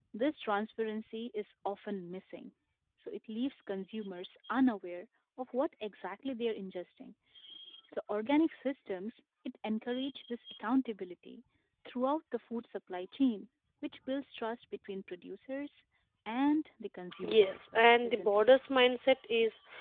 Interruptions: present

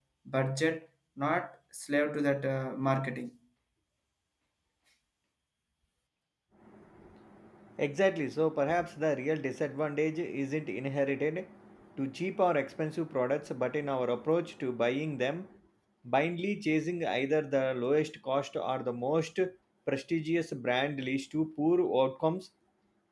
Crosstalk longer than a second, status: none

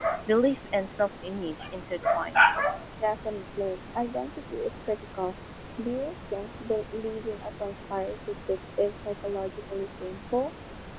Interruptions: none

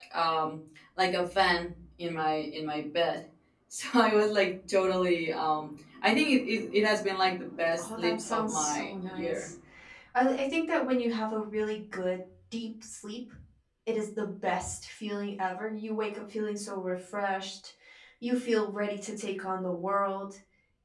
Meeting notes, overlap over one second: present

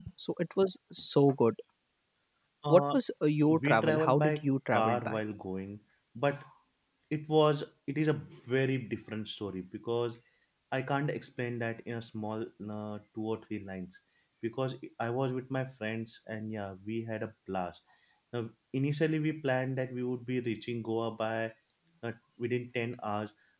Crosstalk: present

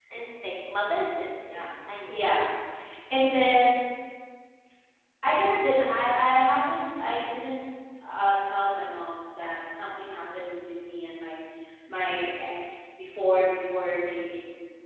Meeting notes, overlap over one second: none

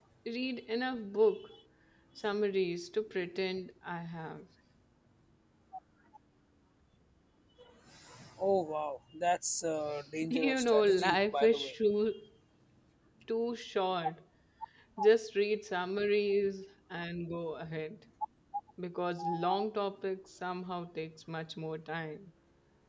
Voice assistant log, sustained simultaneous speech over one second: present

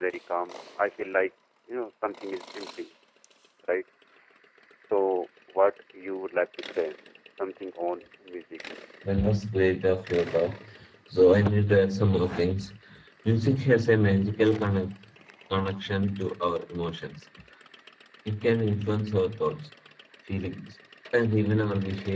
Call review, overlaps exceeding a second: none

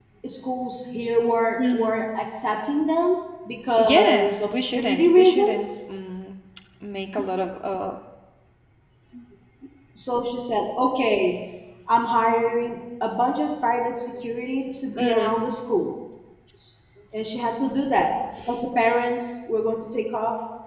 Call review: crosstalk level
present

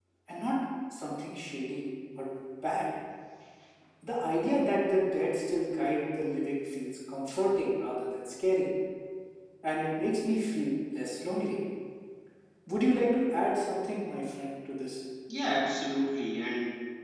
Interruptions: none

